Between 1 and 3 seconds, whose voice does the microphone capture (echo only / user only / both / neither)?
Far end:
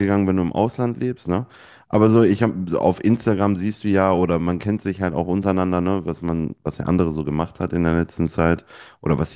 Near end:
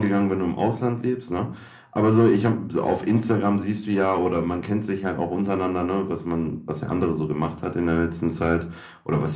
echo only